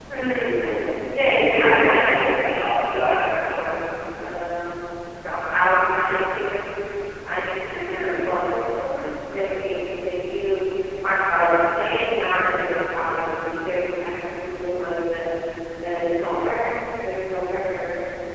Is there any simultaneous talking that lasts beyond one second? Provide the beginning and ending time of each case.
1.2-3.2

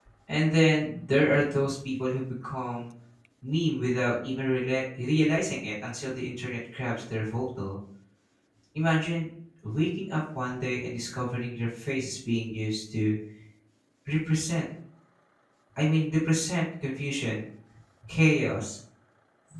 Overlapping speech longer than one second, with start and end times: none

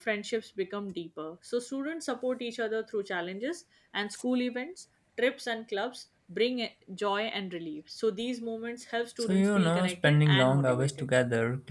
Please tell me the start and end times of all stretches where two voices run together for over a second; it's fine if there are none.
9.2-11.1

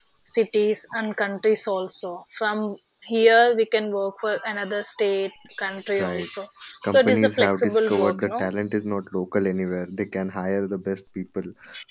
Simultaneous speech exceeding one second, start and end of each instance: 6.9-8.5

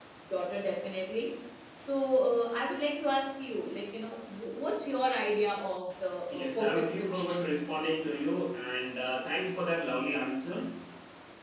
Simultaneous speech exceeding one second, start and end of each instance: 6.3-7.5

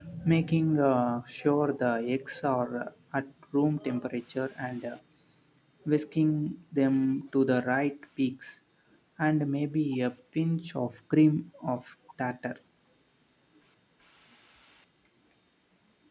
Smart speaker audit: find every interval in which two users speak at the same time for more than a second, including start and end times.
none

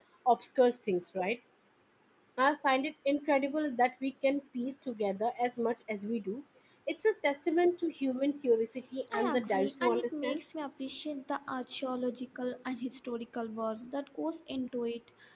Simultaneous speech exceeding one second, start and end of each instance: 9.1-10.4

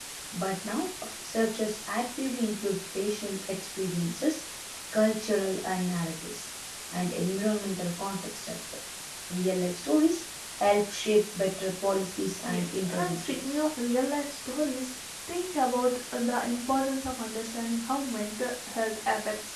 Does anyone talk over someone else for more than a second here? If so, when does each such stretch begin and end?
12.4-13.6

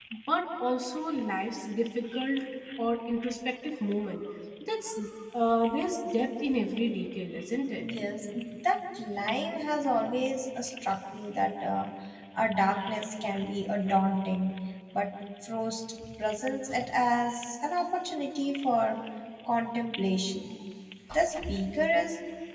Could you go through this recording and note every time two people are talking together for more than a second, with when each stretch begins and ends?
none

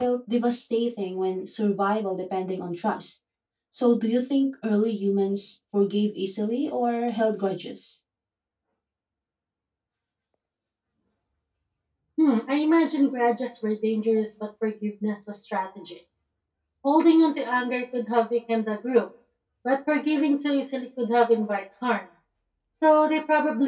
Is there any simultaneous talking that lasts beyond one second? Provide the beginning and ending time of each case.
none

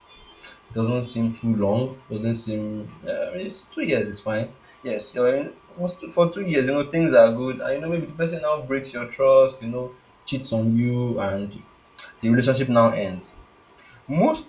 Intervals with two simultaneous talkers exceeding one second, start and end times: none

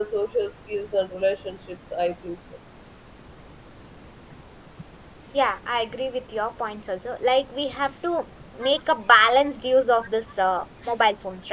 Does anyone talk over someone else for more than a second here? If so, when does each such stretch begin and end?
none

